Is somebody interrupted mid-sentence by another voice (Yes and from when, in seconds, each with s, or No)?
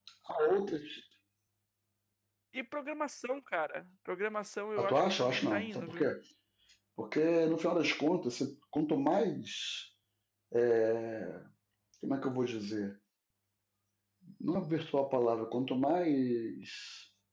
Yes, from 4.8 s